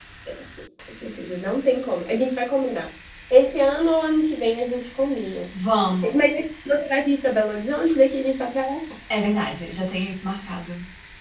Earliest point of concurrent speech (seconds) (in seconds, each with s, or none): none